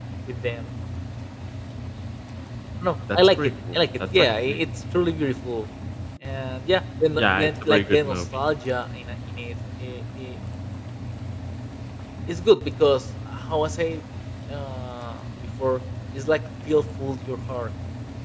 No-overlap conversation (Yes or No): No